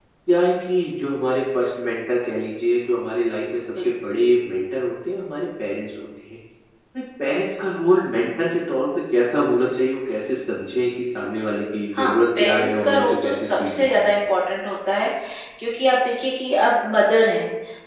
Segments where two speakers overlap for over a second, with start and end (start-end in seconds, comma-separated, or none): 11.9-14.2